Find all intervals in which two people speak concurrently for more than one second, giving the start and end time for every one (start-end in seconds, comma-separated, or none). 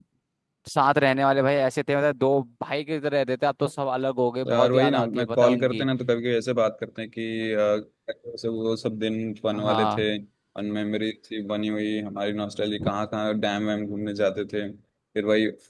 4.5-5.9